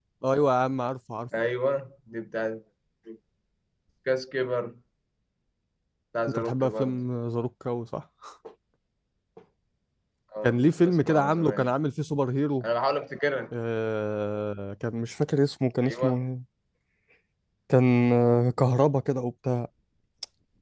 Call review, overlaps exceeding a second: present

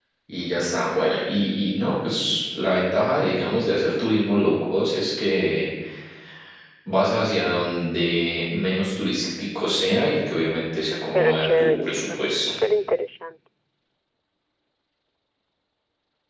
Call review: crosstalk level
present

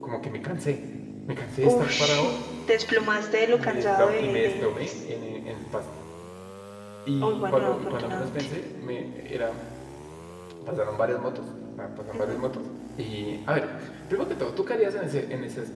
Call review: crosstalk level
present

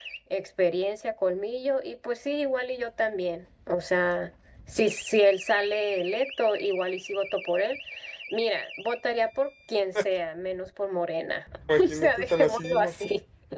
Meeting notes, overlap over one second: present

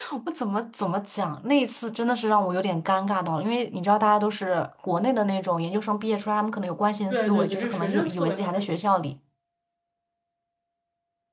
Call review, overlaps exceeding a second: present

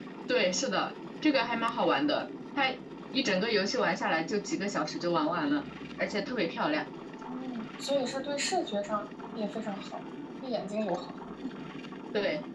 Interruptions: none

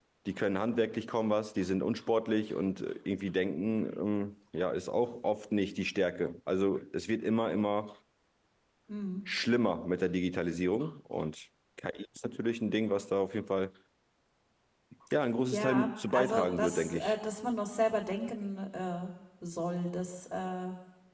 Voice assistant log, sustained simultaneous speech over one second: present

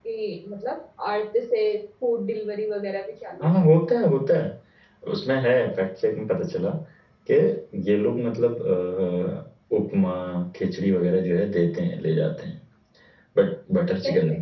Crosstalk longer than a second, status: none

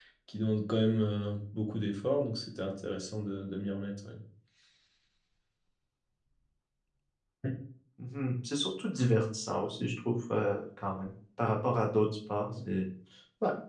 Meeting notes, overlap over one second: none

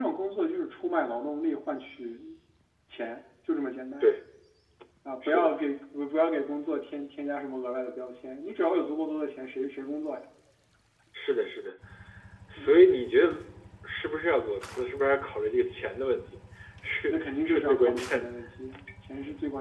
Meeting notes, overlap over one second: present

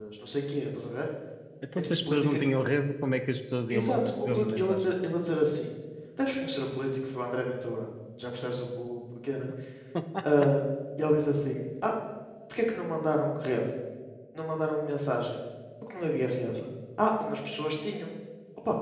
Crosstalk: present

